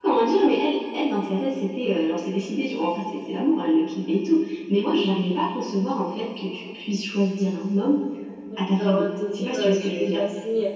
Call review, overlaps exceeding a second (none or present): present